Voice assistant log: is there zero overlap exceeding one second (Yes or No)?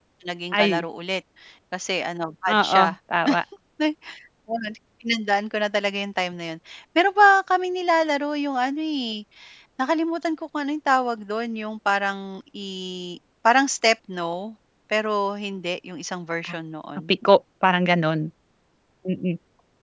Yes